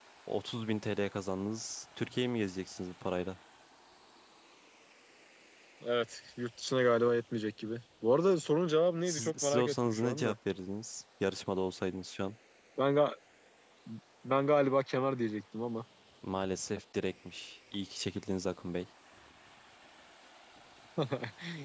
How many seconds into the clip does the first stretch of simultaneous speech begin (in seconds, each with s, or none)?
9.1 s